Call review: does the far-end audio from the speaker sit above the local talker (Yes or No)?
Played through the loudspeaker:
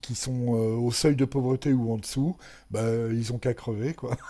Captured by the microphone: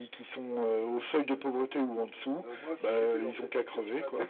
Yes